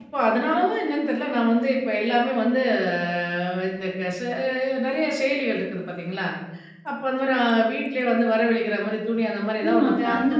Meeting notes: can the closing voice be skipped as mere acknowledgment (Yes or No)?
No